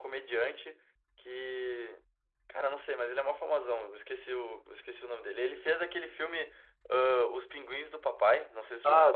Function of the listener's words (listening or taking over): taking over